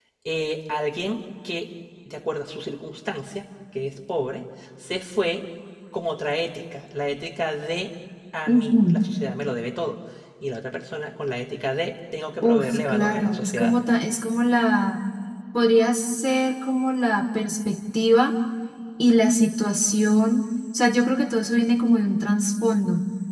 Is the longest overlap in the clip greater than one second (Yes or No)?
Yes